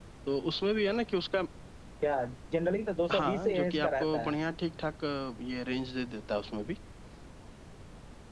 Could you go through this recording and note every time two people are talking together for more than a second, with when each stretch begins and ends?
3.1-4.4

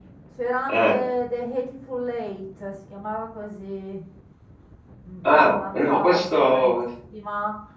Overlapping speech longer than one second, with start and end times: 5.3-6.8

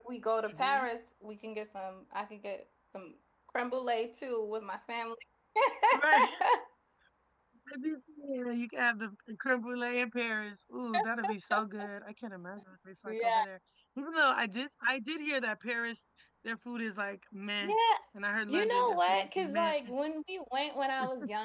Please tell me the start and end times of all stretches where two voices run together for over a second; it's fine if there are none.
18.5-19.7

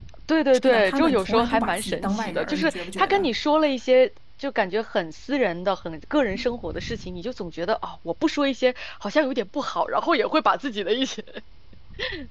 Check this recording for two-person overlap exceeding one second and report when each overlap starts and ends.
0.5-3.3

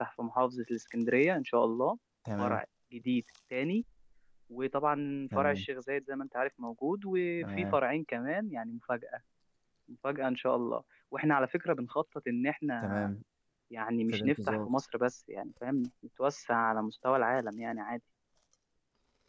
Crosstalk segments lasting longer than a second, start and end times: none

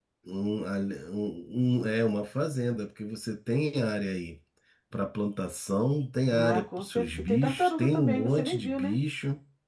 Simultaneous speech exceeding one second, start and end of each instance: 6.3-9.0

